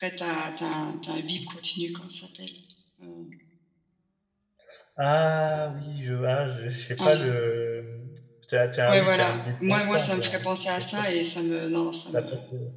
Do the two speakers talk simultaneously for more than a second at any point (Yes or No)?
Yes